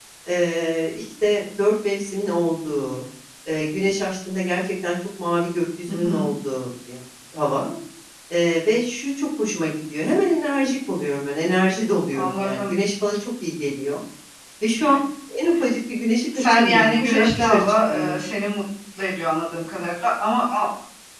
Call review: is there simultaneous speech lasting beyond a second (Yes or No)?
Yes